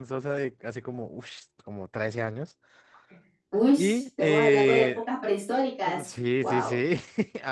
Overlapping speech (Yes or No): Yes